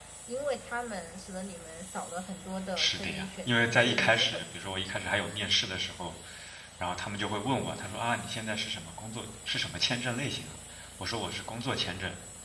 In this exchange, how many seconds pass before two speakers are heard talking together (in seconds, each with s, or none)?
2.8 s